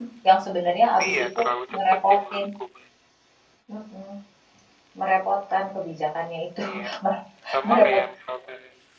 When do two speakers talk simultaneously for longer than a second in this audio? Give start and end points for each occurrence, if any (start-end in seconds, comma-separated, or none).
1.0-2.5